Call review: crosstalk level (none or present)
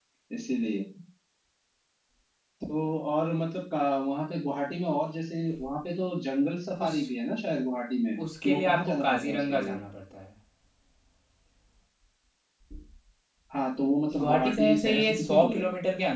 present